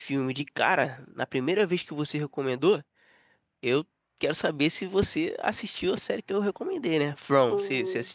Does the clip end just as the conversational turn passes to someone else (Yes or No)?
Yes